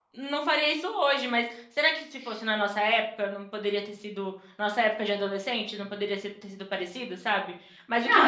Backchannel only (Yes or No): Yes